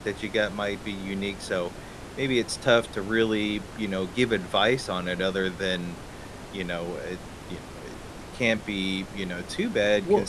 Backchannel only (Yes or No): Yes